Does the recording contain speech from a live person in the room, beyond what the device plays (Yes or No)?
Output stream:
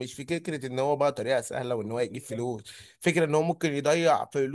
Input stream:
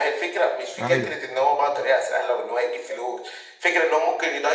Yes